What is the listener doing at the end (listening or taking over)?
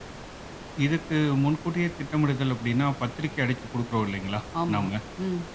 listening